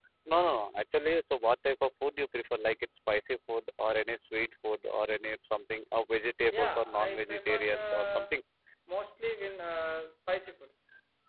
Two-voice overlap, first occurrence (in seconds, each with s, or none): 6.5 s